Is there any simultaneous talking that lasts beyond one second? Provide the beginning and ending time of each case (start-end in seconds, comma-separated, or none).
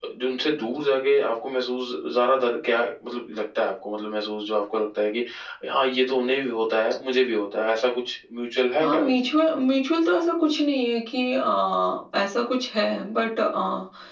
none